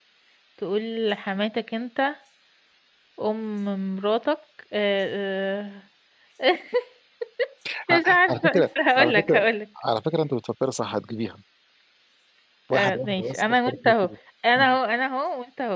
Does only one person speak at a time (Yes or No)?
No